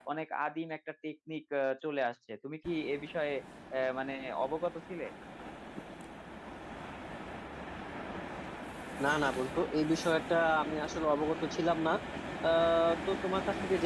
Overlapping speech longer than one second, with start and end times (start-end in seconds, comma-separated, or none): none